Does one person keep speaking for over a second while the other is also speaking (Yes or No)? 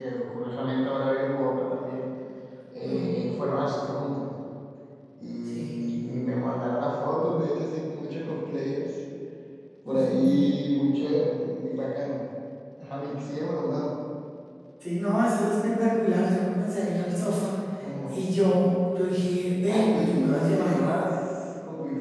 Yes